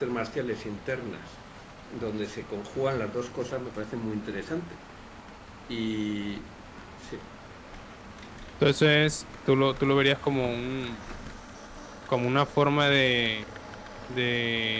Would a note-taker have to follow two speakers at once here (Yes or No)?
No